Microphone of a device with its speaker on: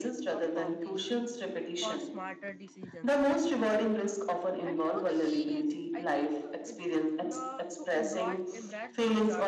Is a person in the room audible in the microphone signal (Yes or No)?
Yes